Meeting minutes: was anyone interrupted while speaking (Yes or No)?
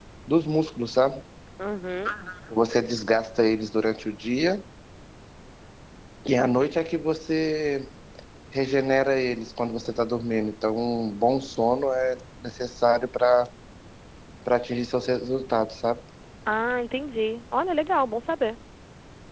No